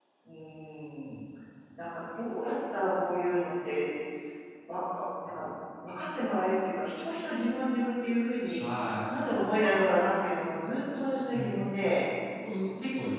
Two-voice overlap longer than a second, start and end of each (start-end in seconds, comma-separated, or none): none